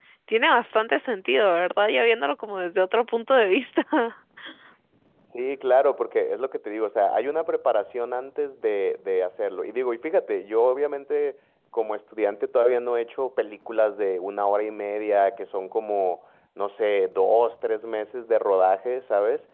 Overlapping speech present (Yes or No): No